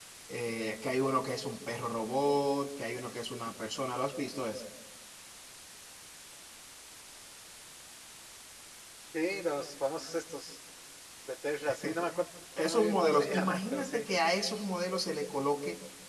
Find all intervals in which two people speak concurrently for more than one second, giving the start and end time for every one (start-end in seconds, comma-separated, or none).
12.6-14.1